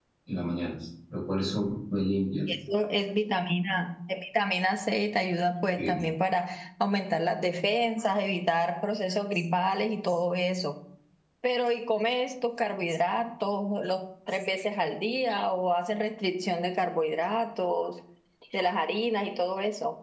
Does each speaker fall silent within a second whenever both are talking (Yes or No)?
Yes